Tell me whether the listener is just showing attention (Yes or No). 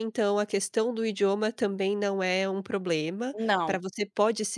Yes